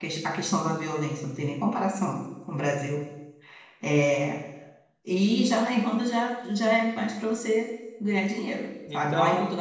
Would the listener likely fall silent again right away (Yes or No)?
Yes